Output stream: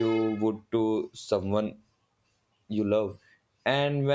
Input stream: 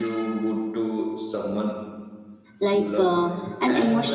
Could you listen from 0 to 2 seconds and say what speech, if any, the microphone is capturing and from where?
echo only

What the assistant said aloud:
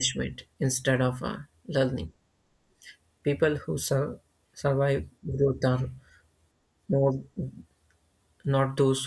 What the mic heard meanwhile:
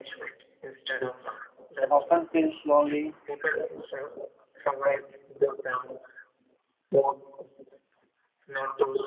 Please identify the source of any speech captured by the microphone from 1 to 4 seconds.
both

